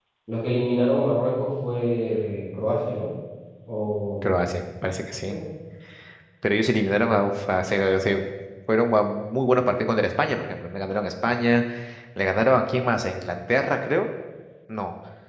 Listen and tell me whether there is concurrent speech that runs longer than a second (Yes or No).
No